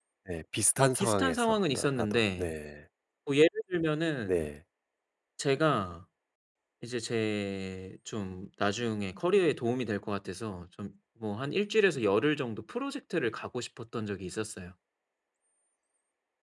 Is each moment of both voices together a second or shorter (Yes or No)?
No